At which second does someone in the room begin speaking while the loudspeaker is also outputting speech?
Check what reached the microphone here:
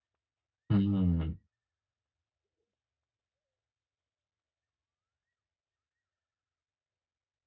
0.7 s

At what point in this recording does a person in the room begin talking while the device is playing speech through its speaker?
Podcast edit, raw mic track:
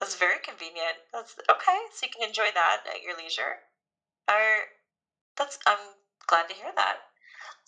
none

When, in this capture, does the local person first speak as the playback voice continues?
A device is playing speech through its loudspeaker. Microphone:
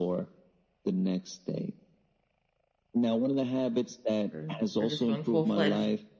4.3 s

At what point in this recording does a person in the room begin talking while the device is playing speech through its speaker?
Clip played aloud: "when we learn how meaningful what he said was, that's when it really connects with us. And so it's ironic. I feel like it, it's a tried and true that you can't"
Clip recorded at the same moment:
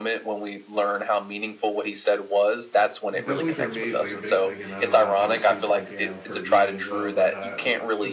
3.1 s

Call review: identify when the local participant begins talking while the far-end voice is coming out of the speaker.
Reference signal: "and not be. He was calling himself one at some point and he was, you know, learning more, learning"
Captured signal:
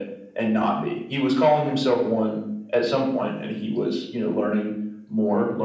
none

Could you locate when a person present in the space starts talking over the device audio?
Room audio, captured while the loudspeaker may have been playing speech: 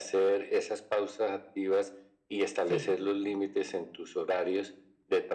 2.6 s

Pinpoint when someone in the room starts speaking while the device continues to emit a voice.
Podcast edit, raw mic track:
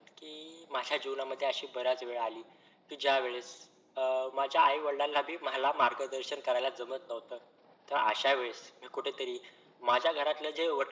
none

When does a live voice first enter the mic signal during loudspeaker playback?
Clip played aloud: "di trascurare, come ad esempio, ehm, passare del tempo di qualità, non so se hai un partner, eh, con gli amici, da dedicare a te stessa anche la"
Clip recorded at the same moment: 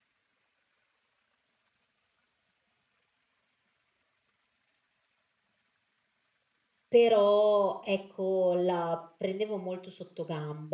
6.9 s

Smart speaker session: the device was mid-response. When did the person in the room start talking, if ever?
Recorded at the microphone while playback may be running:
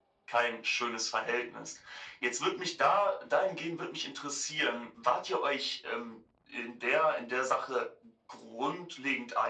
none

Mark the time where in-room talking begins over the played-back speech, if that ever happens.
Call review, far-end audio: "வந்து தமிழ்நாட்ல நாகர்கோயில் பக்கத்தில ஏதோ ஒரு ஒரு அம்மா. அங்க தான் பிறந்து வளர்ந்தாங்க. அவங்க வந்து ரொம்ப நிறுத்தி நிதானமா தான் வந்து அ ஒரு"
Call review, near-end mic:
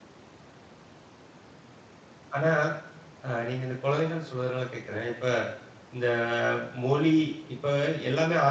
2.4 s

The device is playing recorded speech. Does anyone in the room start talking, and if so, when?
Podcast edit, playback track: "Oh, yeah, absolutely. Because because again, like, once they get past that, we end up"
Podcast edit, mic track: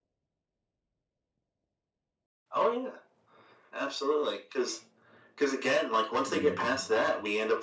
6.2 s

